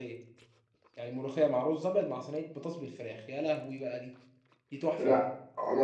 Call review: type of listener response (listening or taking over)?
taking over